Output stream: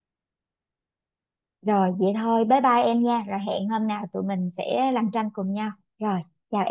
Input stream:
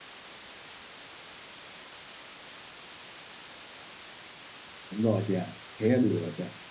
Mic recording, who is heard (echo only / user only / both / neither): user only